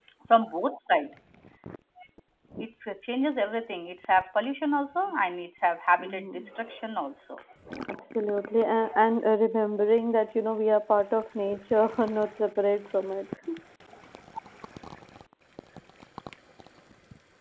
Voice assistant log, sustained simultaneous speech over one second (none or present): none